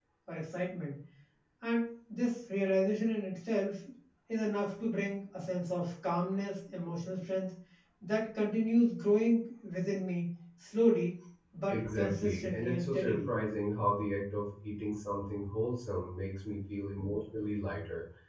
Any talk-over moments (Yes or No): Yes